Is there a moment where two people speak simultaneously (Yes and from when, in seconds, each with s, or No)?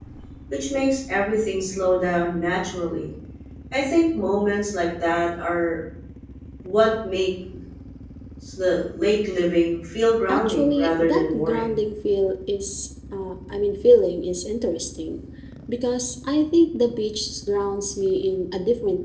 Yes, from 10.3 s